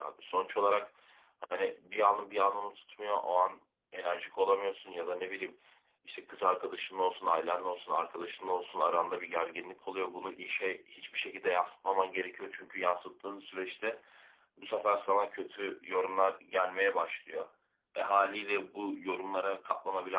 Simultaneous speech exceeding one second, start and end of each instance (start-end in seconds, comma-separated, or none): none